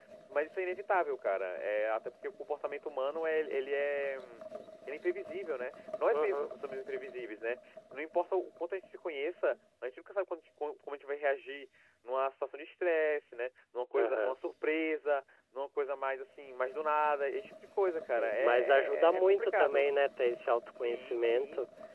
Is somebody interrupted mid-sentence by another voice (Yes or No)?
Yes